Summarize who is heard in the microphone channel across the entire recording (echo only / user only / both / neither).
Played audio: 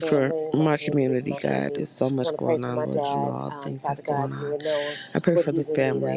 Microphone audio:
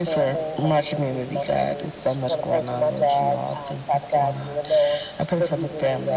echo only